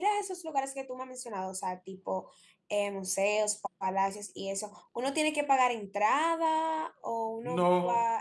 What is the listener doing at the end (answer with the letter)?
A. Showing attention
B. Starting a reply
B